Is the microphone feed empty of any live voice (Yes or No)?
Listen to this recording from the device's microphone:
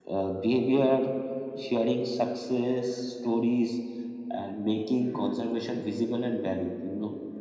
Yes